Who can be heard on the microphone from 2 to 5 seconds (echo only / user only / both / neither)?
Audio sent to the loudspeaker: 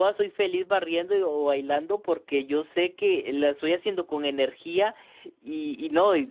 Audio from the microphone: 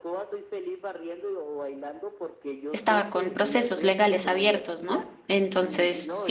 both